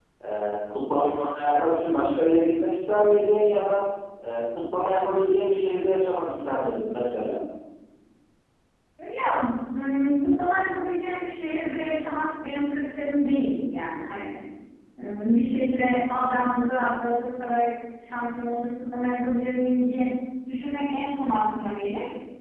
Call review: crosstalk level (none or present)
none